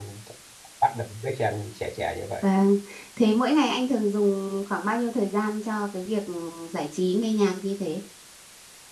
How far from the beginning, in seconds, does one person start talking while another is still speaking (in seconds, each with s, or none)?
none